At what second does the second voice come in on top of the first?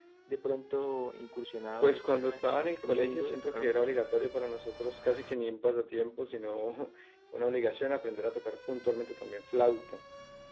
1.8 s

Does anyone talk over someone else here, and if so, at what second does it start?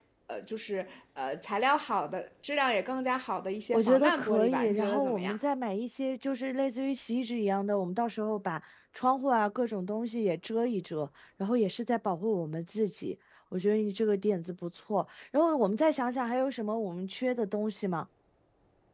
3.7 s

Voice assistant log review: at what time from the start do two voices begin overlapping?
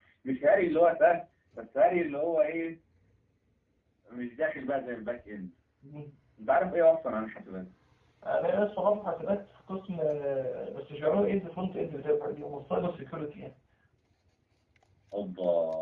none

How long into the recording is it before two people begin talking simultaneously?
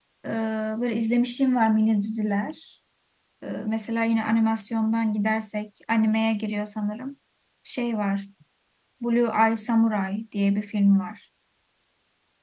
none

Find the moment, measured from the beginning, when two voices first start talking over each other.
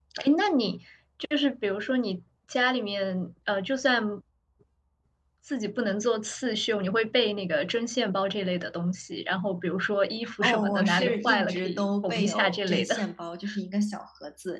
10.2 s

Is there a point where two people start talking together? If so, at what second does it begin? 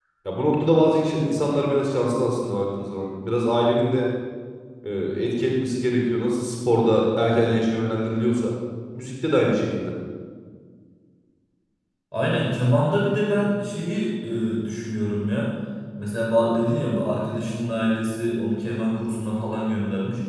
none

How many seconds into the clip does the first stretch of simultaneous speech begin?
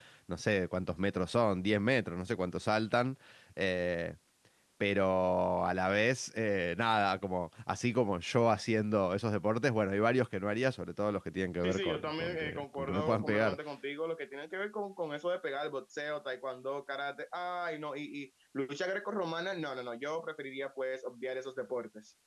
11.6 s

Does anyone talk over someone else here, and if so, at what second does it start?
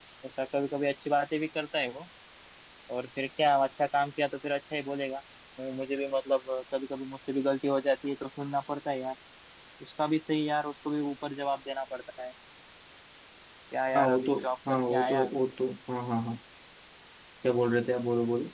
13.9 s

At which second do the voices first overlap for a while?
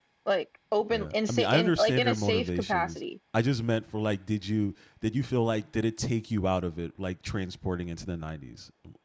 0.9 s

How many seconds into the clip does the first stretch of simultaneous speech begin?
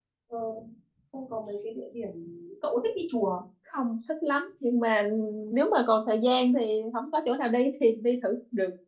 none

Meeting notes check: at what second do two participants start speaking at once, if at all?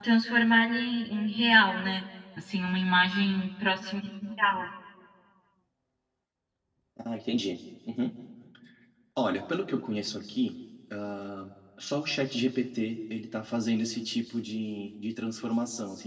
none

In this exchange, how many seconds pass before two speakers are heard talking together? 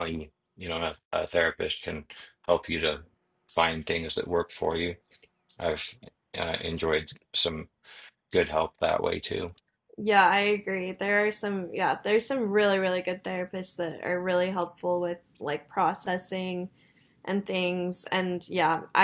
none

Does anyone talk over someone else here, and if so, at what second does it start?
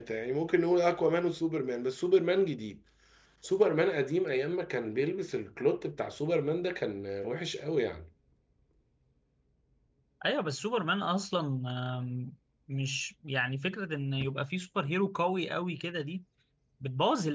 none

